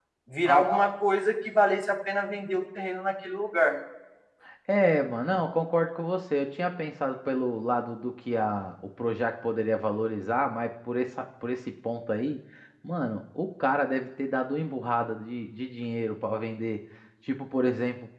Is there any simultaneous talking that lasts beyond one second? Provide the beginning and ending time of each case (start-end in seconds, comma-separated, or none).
none